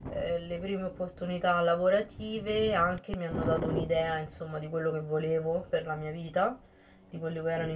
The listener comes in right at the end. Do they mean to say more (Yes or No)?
No